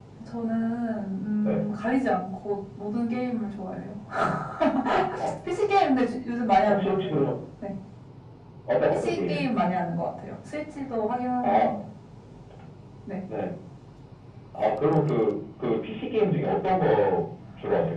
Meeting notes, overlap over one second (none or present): none